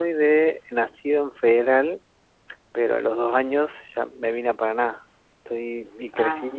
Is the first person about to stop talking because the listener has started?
No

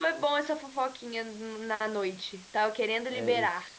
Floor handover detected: Yes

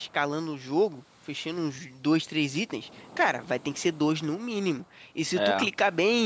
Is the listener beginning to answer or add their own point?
No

